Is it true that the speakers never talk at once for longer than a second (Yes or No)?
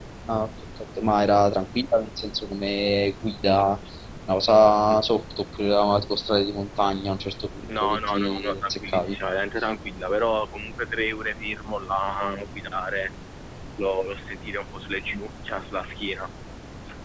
No